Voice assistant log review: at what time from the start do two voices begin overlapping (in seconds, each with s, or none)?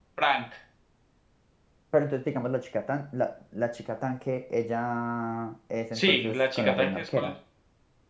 5.9 s